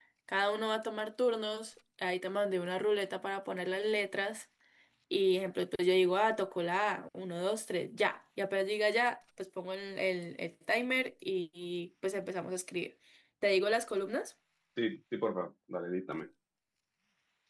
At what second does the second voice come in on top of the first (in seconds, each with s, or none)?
none